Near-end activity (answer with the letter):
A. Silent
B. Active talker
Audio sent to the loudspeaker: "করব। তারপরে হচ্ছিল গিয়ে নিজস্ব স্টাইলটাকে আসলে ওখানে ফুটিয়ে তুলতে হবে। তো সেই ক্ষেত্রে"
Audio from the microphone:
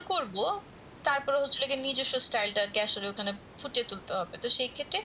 A